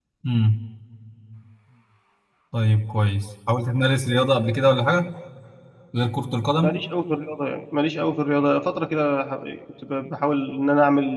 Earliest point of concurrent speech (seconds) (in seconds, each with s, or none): none